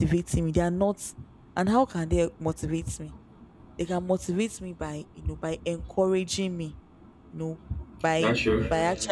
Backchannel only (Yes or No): Yes